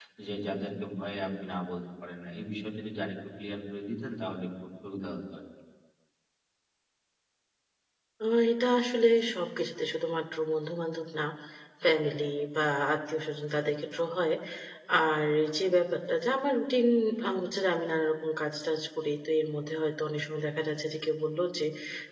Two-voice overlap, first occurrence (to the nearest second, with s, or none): none